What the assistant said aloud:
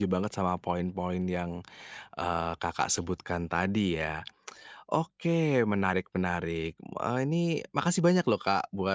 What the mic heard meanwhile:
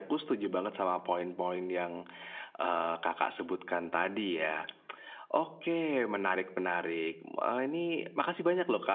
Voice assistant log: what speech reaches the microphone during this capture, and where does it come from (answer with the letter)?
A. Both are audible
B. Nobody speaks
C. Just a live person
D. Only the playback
D